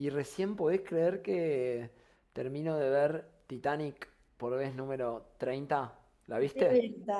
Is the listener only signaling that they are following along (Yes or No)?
No